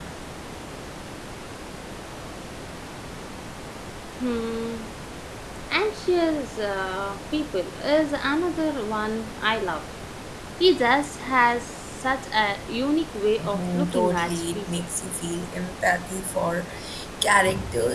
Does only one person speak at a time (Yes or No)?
No